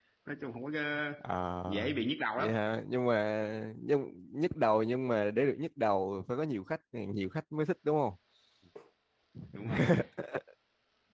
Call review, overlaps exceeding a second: none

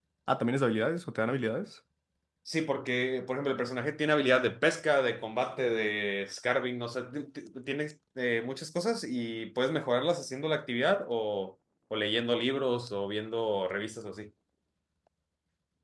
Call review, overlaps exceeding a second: none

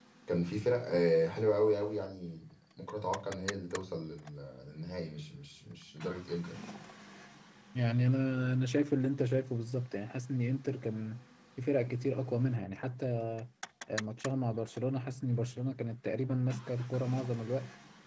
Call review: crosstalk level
none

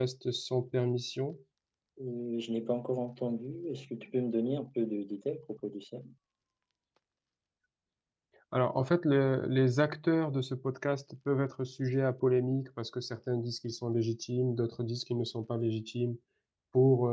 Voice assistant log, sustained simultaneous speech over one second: none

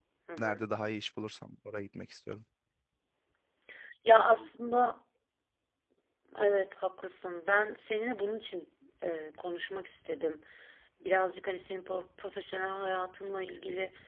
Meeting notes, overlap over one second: none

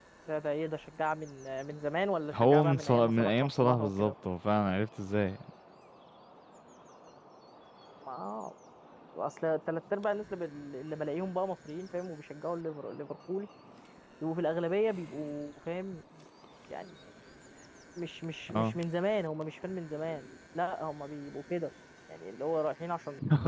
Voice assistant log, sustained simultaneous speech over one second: present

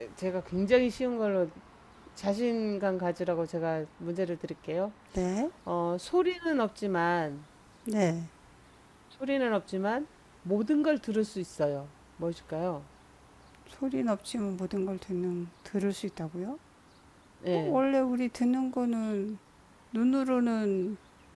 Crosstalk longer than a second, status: none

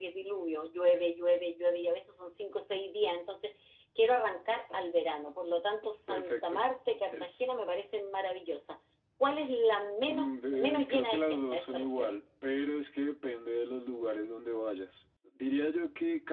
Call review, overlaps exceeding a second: present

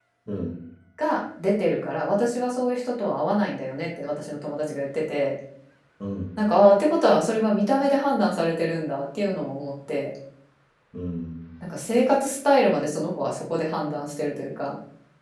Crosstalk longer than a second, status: none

